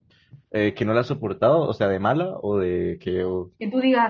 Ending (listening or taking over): taking over